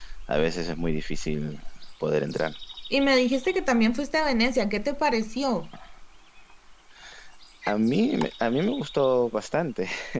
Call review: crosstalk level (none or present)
none